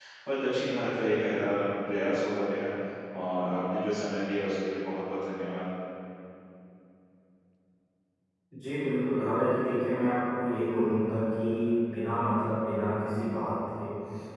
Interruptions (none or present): none